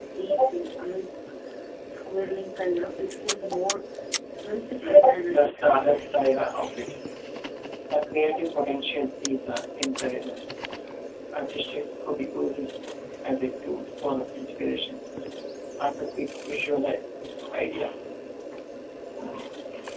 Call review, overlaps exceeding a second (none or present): present